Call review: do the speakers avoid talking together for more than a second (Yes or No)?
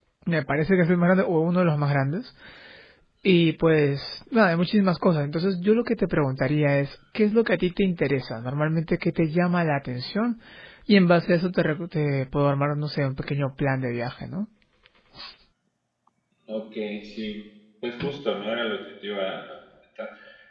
Yes